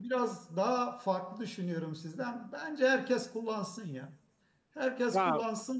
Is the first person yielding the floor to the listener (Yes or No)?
No